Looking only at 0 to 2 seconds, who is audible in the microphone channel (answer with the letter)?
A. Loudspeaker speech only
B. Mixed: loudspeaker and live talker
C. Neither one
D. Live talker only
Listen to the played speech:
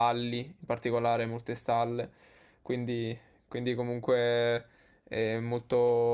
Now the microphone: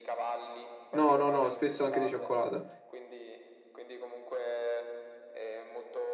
B